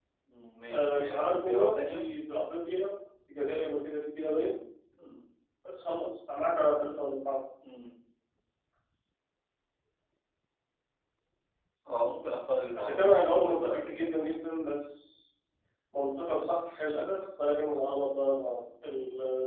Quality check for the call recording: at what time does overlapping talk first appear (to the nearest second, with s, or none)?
1 s